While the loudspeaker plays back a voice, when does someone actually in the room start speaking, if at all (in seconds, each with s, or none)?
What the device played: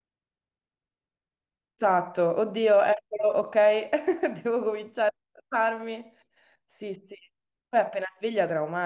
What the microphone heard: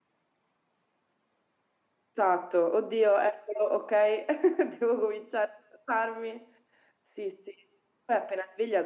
none